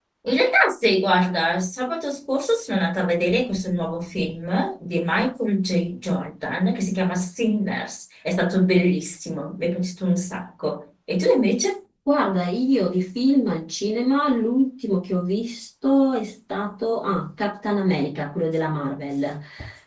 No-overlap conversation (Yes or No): Yes